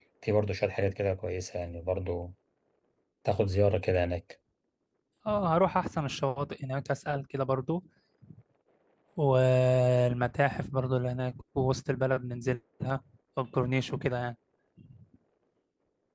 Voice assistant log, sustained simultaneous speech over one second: none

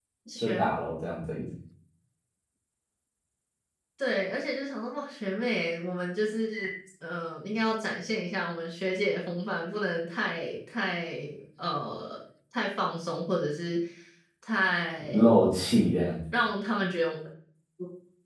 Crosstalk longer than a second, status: none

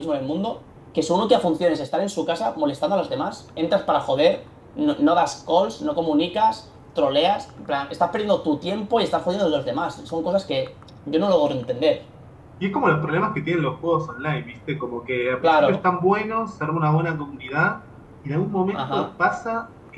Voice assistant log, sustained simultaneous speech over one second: none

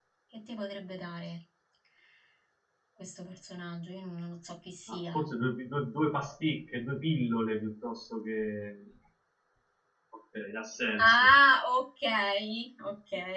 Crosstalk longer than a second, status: none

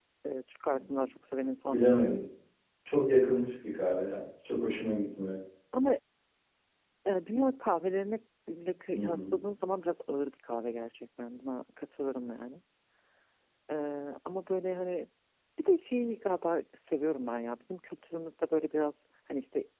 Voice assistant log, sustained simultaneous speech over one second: none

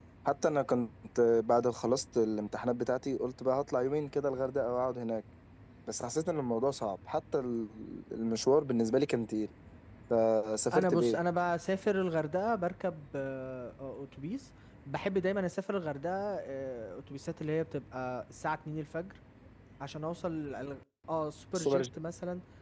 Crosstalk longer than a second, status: none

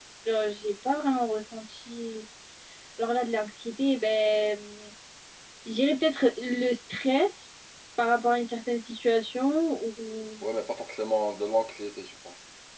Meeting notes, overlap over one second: none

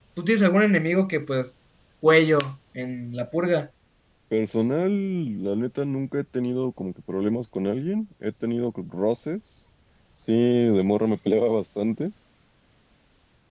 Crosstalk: none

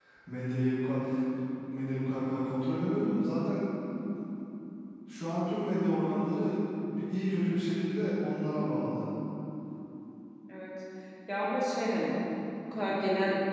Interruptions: none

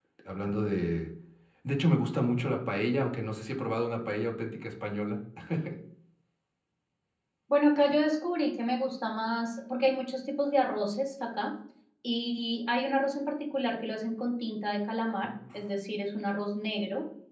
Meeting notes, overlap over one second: none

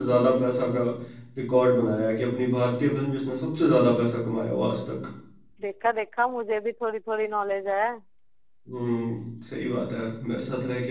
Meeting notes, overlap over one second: none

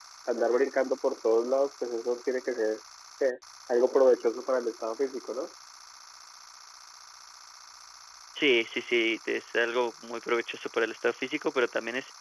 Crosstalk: none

